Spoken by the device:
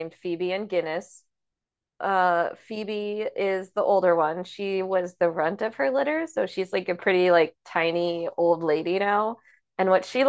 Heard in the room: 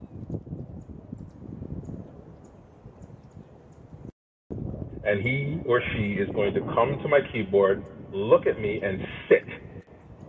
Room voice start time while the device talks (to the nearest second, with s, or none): 5 s